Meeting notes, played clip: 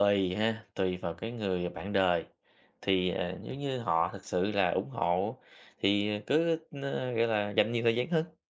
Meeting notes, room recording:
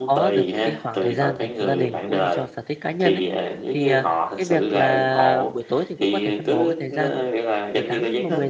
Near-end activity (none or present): present